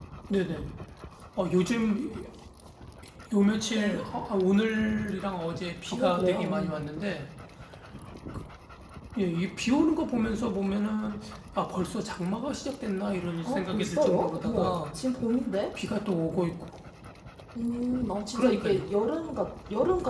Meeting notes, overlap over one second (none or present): present